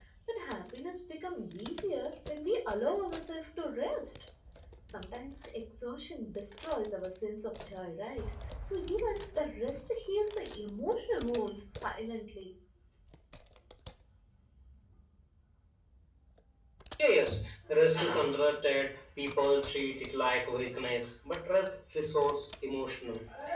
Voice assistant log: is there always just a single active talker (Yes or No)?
Yes